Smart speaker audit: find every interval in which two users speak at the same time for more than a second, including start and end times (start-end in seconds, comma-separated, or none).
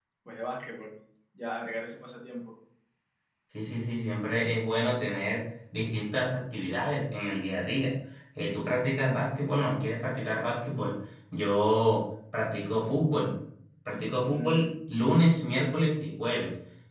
none